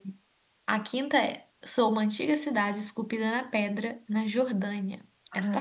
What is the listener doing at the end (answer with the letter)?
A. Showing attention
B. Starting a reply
B